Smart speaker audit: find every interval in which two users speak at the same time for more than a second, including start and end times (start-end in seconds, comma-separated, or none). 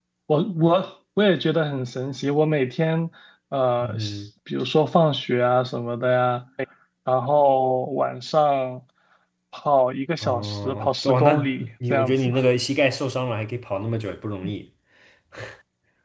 10.2-12.3